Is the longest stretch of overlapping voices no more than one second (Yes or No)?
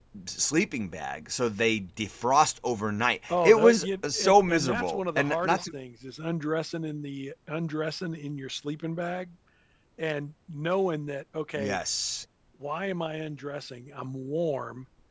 No